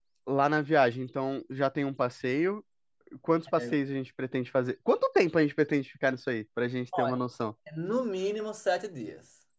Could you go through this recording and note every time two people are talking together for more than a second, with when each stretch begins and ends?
none

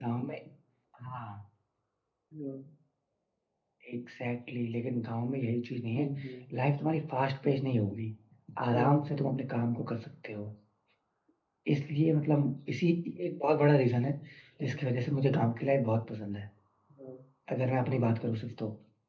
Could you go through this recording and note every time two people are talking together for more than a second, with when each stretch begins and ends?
none

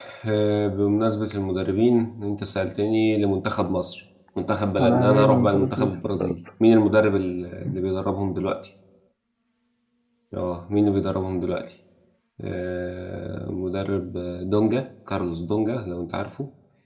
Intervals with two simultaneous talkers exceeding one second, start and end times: 4.8-6.3

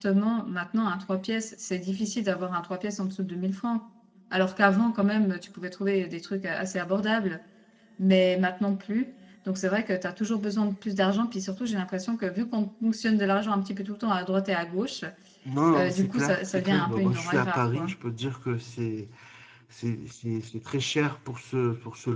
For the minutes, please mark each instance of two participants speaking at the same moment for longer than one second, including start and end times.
15.7-17.9

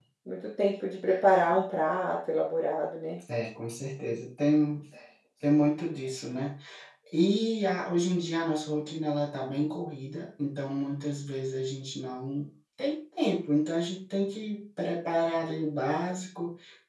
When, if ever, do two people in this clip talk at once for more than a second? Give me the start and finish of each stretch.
none

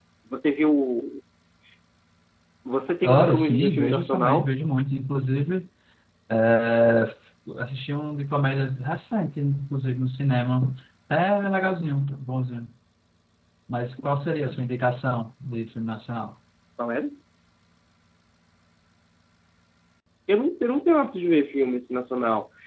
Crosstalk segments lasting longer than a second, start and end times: 3.0-4.5

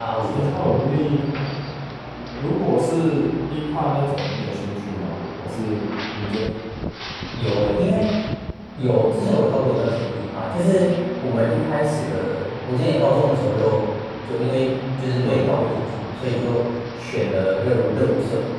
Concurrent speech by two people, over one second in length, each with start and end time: none

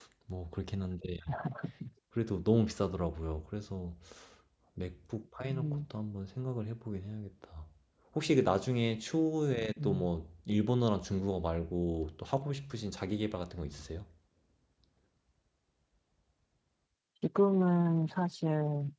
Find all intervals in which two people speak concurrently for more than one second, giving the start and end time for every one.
none

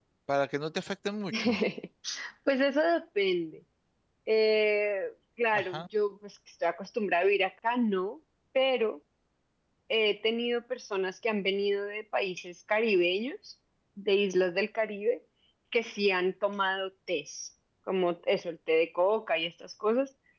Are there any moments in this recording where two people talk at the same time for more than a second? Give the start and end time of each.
none

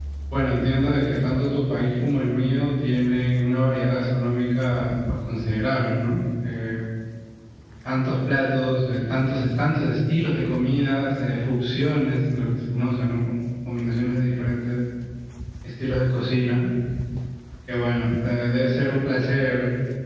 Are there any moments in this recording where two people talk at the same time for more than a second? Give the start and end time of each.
none

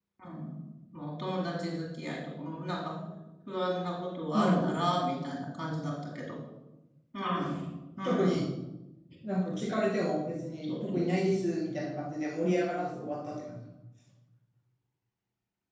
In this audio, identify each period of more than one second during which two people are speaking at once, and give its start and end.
none

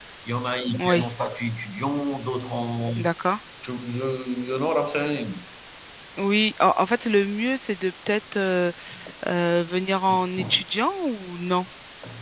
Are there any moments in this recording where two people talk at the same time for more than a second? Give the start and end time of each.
none

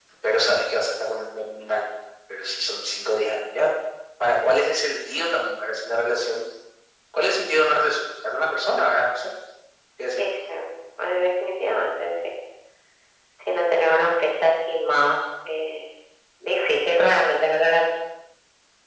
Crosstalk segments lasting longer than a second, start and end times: none

